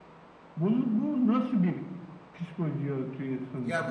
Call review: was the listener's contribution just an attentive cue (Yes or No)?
No